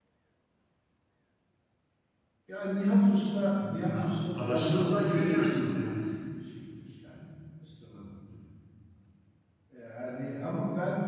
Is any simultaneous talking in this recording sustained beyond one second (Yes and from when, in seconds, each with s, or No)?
Yes, from 3.9 s